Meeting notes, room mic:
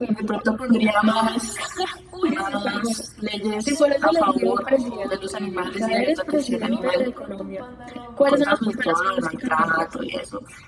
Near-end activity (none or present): present